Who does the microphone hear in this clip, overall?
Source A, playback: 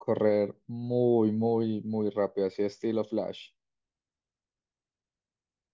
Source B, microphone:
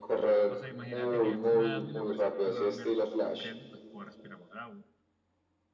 both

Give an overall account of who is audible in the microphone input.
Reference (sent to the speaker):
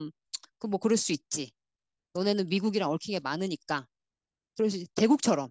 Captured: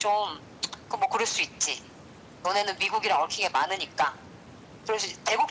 echo only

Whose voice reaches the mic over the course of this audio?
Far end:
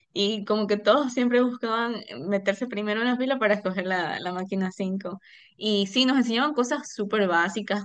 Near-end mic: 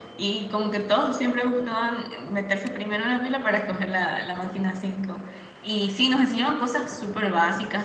echo only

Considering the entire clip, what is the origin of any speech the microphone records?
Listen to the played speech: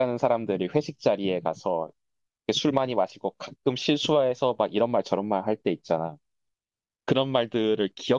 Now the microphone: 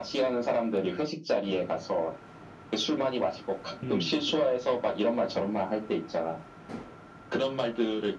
both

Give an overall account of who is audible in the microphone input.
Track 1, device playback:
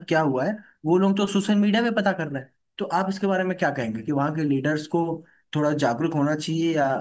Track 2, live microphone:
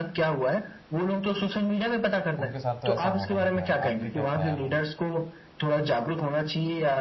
both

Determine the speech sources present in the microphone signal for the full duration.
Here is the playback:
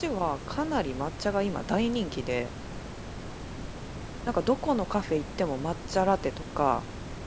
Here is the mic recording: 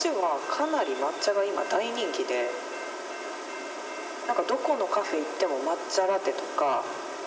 echo only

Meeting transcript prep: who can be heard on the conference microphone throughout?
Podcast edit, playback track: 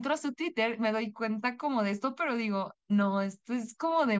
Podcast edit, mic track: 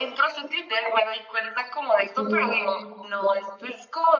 both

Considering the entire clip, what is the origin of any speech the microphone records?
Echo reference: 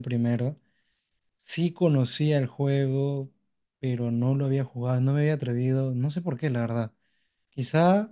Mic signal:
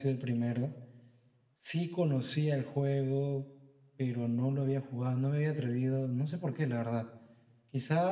echo only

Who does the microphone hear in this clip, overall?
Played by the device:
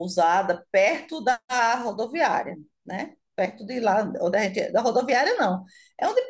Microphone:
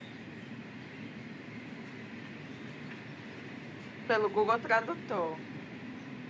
user only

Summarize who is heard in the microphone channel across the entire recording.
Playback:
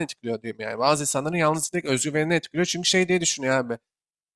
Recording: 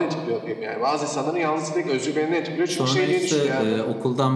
both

